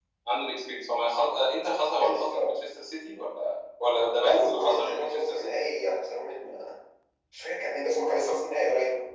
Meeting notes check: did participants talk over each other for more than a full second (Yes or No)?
Yes